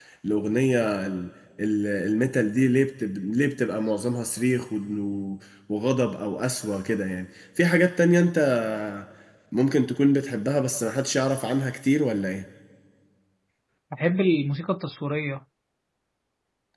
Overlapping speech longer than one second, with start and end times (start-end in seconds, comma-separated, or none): none